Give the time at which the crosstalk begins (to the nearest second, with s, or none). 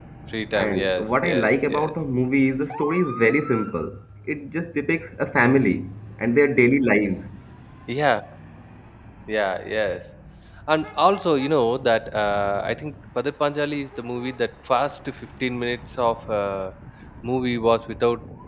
1 s